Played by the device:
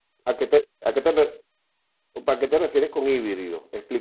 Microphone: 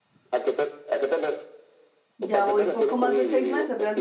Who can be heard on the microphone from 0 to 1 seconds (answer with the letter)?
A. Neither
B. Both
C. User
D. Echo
D